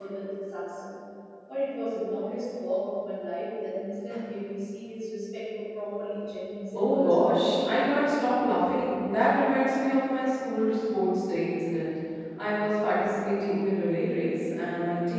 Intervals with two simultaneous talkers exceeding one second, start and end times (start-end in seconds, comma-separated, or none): 6.7-8.0